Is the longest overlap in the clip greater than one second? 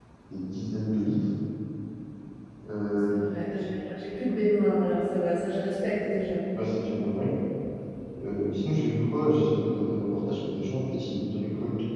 No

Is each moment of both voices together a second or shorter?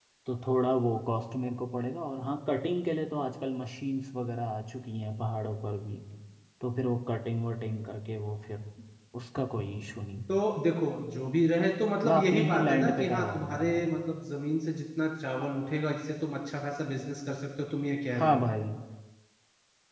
No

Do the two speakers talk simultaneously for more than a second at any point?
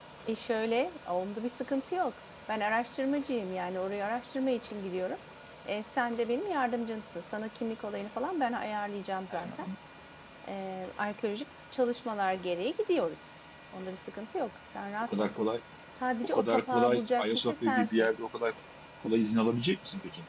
Yes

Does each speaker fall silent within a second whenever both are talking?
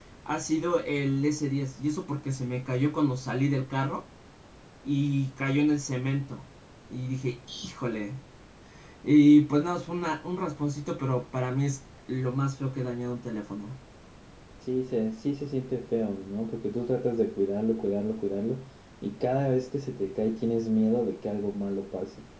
Yes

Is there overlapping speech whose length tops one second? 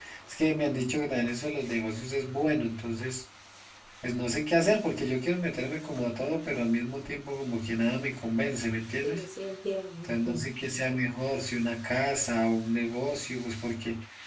No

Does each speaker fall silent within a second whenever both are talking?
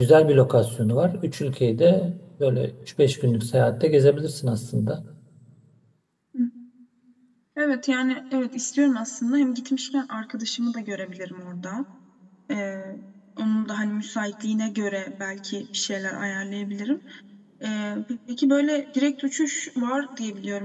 Yes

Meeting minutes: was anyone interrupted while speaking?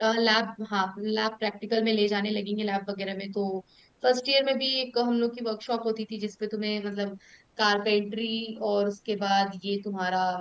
No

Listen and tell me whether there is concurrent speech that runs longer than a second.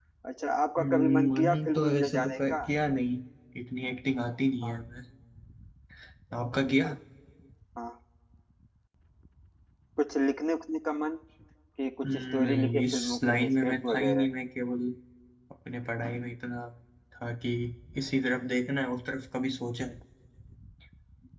Yes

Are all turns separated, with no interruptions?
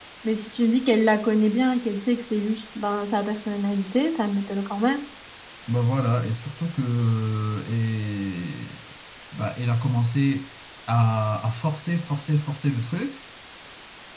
Yes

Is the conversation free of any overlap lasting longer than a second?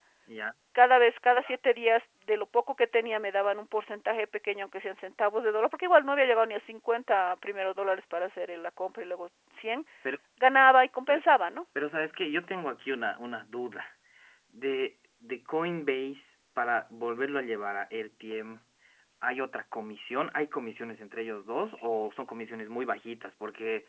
Yes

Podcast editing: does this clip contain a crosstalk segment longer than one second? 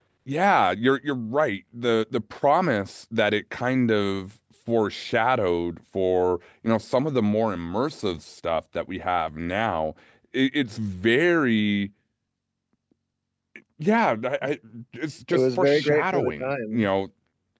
Yes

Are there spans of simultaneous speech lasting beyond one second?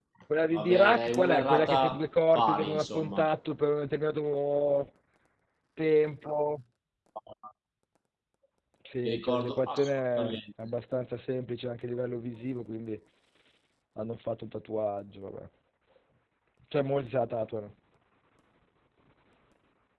Yes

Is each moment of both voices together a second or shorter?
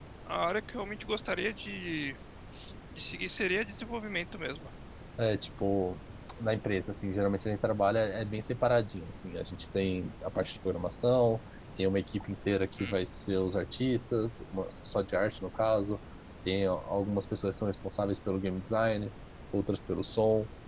Yes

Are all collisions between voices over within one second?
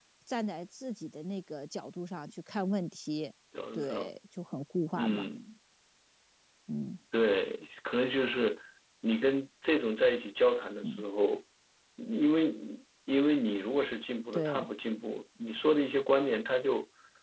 Yes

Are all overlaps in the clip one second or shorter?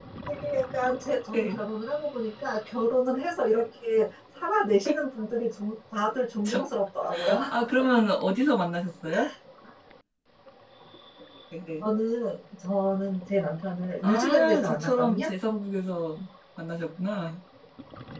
No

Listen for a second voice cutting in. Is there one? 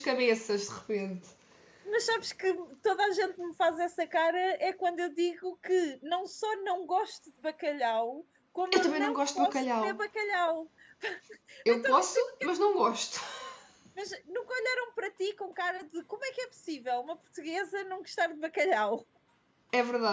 Yes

